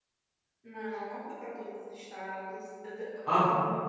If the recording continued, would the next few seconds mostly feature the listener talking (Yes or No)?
Yes